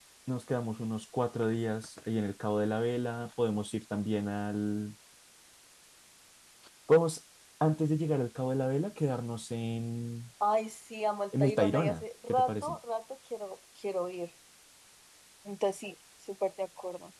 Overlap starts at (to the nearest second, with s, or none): 11 s